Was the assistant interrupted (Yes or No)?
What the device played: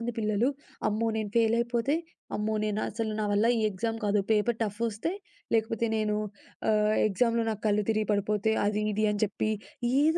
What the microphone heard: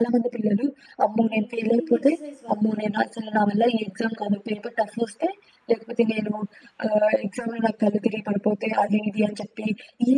Yes